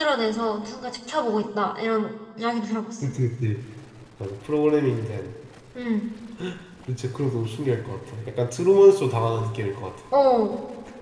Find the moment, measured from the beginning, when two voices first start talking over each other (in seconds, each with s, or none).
none